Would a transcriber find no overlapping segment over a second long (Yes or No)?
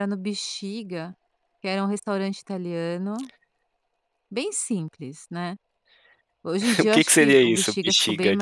No